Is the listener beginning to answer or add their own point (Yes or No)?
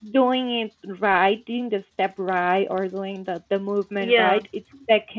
No